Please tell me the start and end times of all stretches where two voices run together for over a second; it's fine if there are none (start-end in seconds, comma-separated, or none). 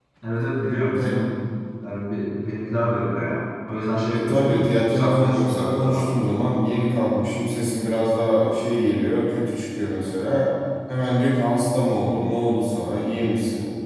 4.1-6.2